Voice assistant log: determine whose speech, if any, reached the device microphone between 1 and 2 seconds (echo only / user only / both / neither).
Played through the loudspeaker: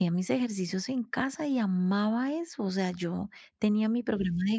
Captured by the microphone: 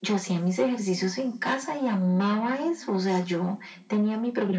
echo only